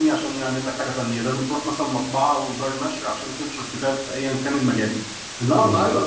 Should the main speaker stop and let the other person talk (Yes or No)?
No